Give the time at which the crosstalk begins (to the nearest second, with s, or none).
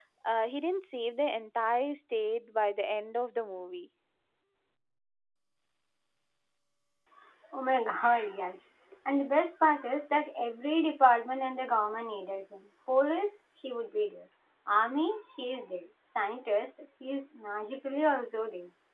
none